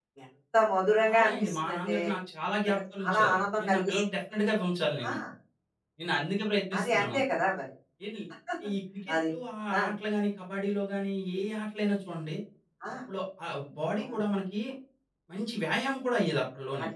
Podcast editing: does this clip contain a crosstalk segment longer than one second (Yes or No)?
Yes